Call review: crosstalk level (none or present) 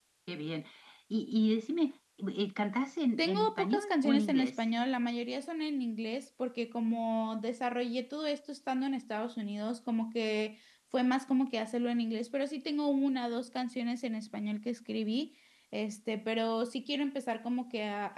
present